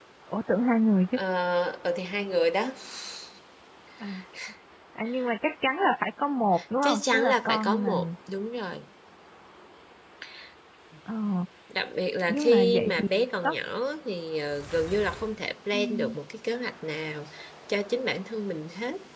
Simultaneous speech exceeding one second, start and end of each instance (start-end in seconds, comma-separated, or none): 6.8-8.1, 12.3-13.6